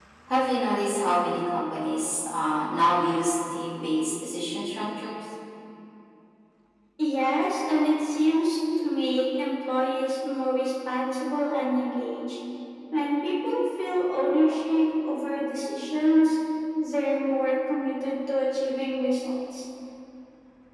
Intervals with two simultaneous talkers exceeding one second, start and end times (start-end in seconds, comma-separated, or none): none